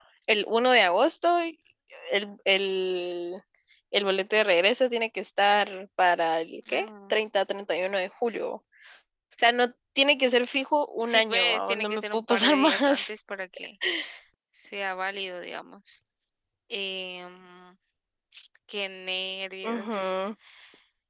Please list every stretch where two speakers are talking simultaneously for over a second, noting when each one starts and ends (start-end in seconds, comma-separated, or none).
11.0-13.1